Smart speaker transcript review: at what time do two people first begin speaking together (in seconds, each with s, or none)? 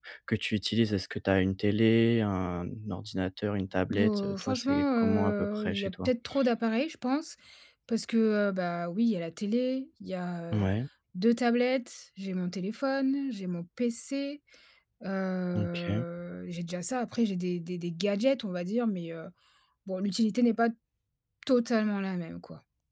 3.9 s